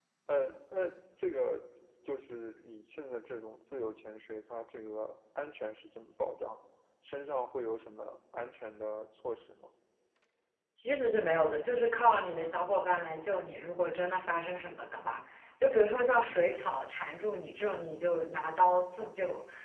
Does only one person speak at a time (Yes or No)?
Yes